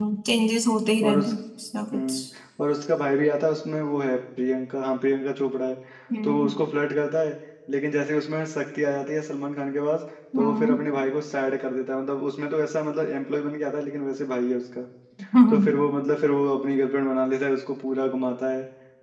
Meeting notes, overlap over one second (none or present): none